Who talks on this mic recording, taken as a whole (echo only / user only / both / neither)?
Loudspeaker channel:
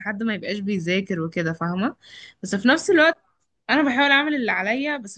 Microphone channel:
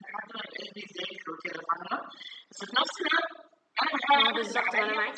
both